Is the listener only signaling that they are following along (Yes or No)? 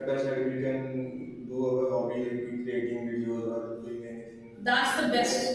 No